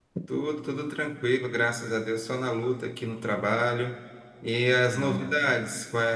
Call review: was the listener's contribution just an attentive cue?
Yes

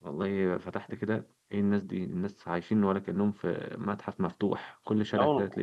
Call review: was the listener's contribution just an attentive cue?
Yes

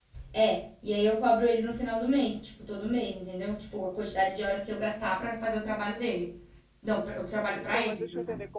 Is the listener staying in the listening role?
No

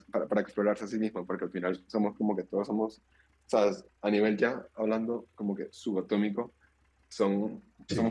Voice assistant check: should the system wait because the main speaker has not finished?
Yes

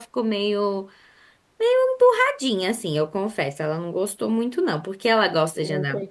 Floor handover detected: No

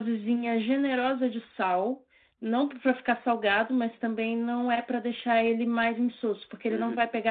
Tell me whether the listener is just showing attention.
Yes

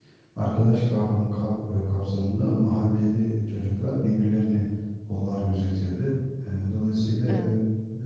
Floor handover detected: No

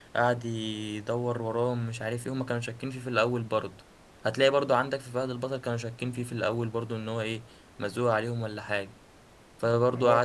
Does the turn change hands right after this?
Yes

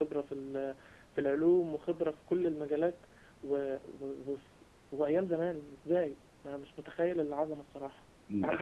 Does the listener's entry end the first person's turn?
Yes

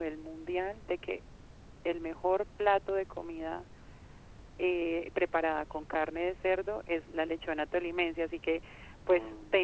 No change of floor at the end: Yes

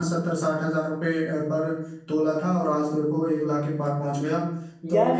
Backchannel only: No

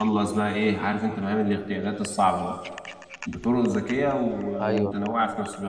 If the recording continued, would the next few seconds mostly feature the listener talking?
No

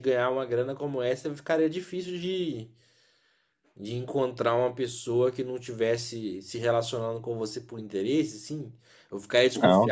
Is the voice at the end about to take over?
Yes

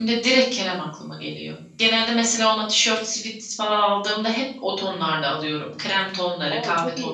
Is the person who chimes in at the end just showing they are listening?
No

